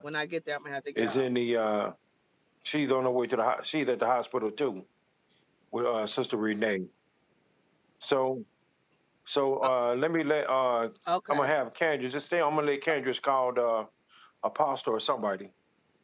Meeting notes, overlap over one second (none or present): none